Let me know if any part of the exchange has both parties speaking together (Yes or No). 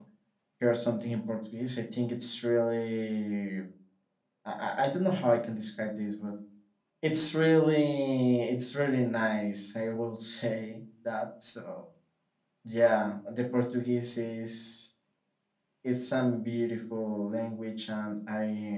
No